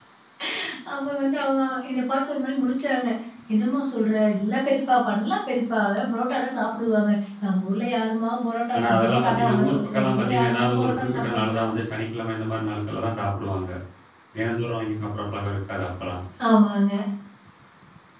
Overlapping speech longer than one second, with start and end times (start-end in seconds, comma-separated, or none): 8.8-11.7